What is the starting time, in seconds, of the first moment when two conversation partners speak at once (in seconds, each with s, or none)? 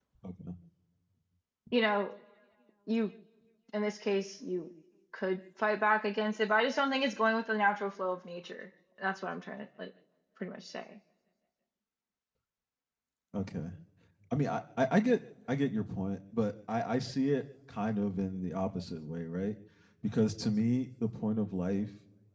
none